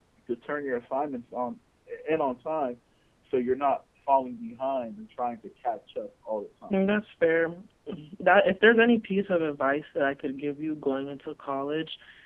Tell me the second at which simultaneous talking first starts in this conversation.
none

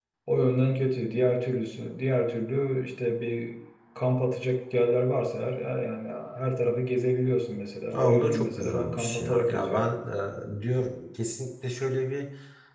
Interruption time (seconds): 7.9 s

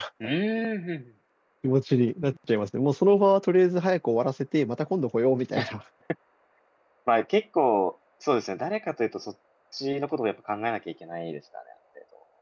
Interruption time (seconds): none

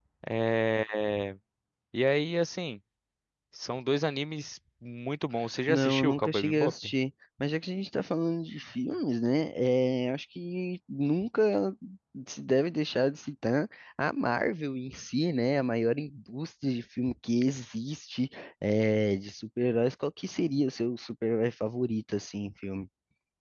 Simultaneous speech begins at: 5.7 s

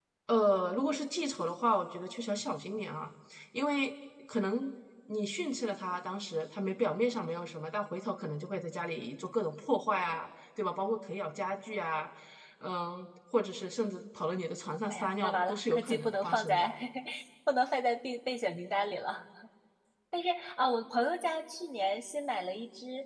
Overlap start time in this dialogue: 14.9 s

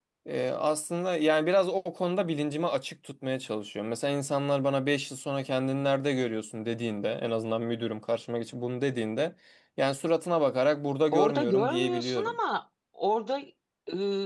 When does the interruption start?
11.1 s

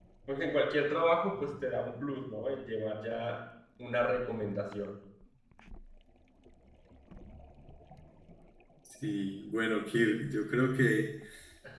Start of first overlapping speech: none

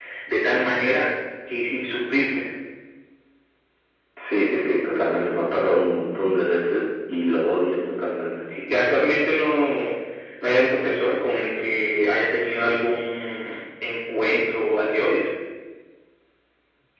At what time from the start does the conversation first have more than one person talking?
none

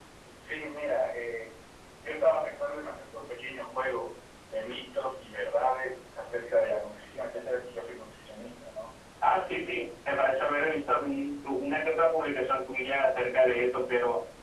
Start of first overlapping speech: none

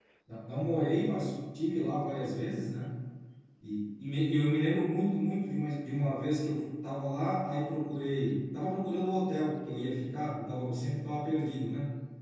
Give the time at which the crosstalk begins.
none

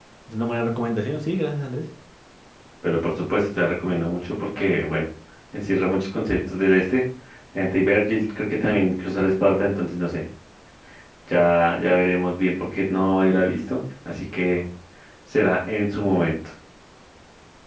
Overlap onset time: none

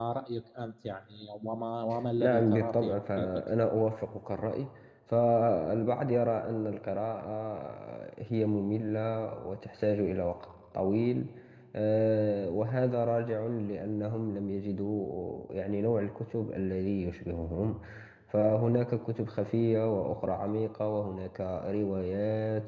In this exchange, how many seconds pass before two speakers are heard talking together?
2.2 s

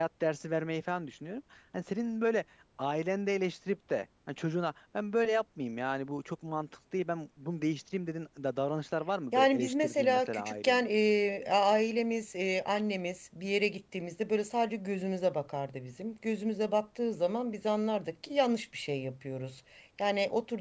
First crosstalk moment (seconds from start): 9.3 s

